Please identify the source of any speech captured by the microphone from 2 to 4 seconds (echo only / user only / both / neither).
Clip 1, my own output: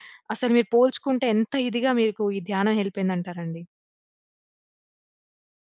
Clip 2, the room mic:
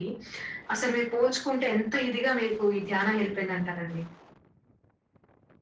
echo only